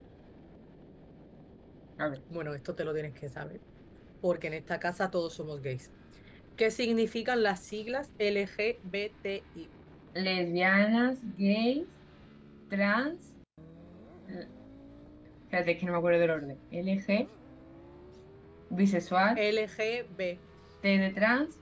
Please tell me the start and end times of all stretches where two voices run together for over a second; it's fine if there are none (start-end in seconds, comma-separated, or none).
none